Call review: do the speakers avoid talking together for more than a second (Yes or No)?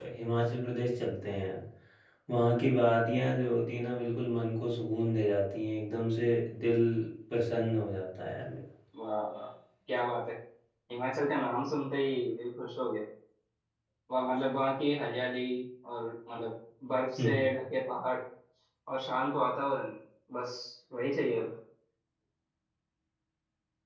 Yes